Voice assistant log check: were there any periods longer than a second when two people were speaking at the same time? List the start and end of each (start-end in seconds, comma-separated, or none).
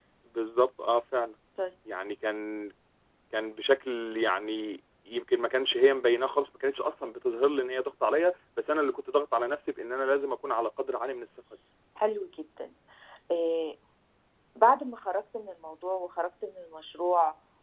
none